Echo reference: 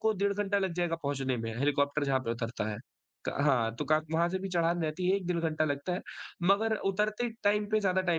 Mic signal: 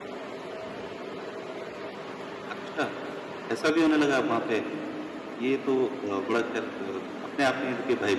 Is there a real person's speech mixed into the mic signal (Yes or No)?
Yes